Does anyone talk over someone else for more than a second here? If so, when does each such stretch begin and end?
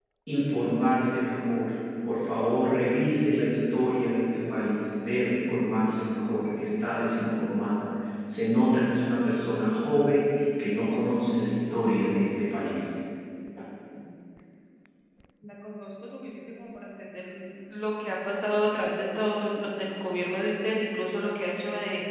none

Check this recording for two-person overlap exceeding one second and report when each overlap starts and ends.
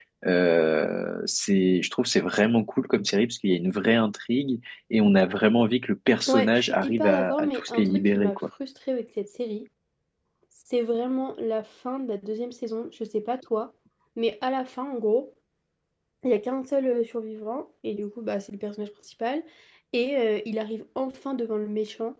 6.3-8.4

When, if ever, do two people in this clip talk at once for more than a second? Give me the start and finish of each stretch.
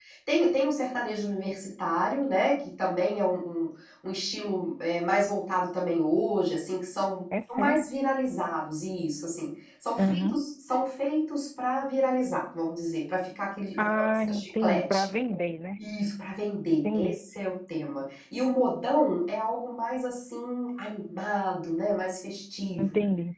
13.8-15.0

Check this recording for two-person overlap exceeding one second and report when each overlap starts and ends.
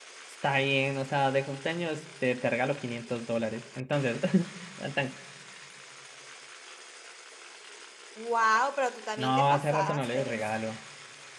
9.2-10.4

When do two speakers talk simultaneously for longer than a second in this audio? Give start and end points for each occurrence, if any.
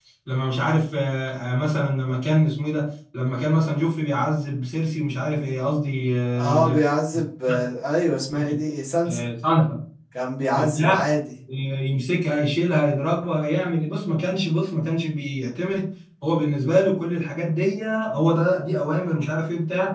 none

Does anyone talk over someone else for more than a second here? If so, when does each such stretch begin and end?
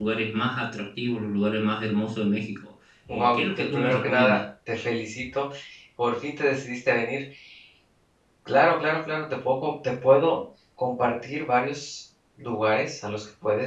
3.1-4.4

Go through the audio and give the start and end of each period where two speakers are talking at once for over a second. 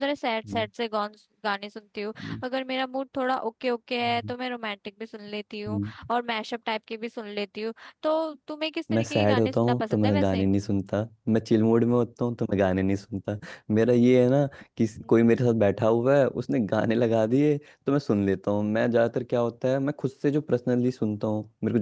8.9-10.4

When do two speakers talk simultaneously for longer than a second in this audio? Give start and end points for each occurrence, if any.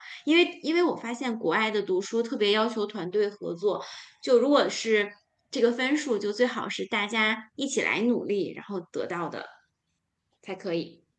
none

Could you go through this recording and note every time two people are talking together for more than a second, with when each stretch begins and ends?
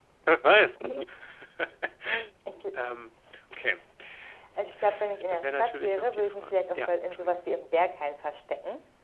5.3-7.4

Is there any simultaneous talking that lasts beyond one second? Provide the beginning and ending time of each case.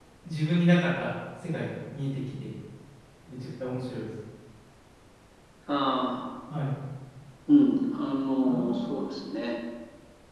none

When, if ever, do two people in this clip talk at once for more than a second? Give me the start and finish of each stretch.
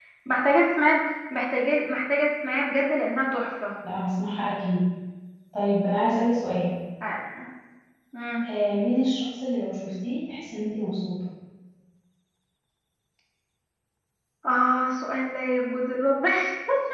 none

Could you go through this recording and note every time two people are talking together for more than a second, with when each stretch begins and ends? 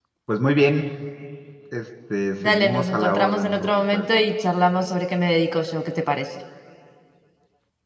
2.5-4.0

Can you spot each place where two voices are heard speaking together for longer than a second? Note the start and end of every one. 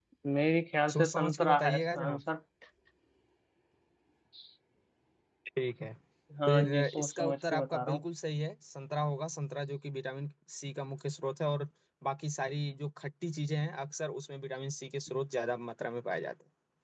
0.9-2.2, 6.5-8.0

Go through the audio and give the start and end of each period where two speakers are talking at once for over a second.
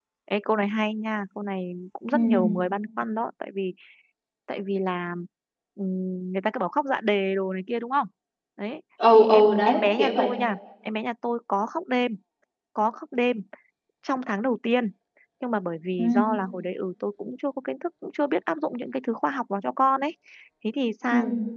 9.1-10.3

